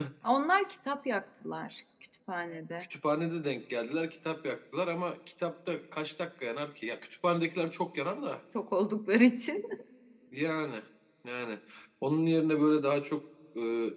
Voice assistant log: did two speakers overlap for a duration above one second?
No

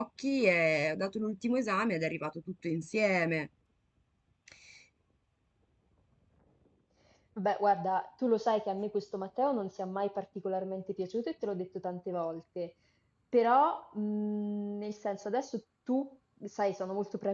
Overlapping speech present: No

